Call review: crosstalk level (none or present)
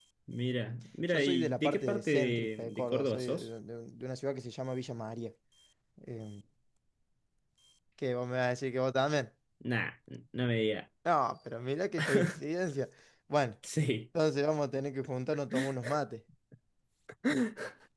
present